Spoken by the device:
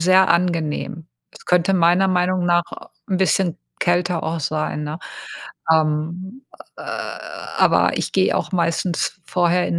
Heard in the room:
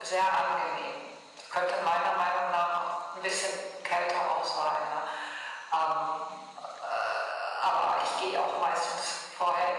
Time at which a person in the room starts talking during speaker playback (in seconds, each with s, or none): none